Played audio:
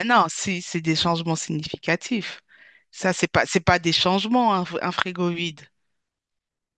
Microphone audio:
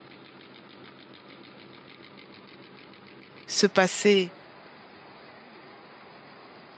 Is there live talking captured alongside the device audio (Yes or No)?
Yes